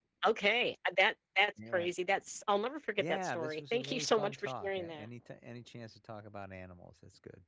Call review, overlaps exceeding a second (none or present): present